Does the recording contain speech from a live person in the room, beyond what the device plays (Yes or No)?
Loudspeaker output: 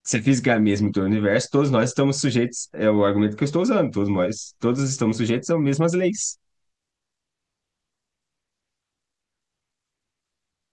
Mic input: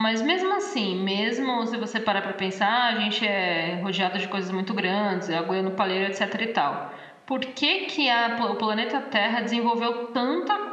Yes